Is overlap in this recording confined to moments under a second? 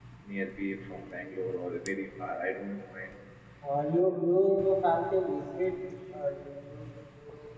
Yes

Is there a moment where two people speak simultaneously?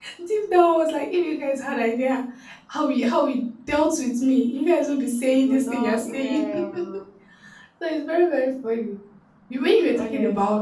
Yes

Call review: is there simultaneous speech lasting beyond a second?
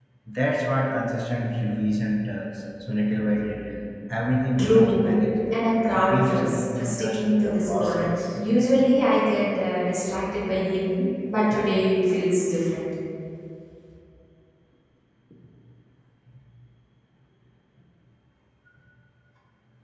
Yes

